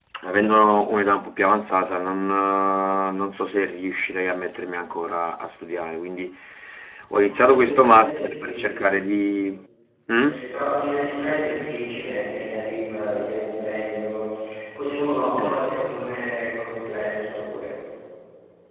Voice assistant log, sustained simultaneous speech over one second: present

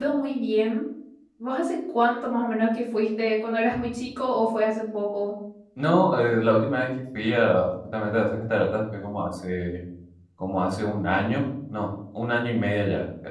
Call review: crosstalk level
none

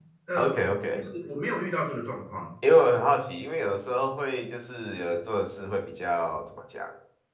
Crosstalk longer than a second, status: none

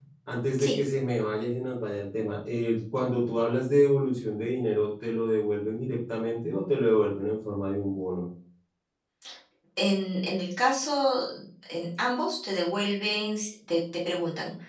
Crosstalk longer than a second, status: none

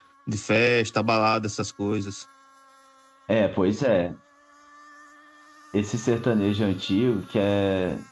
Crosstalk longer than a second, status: none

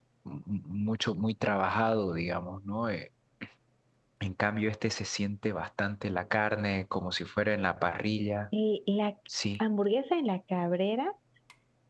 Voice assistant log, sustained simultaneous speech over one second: none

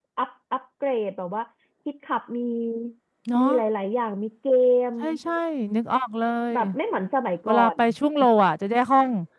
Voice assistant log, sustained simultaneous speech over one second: none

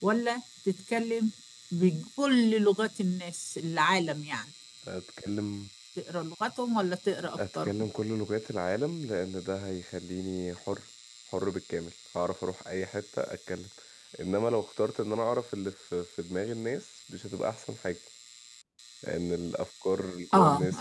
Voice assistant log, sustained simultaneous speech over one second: none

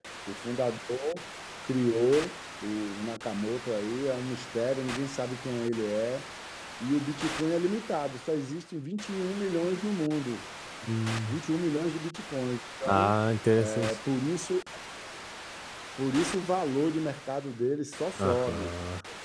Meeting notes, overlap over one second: none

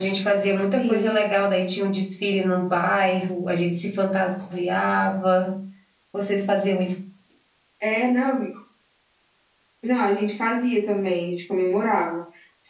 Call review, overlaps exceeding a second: none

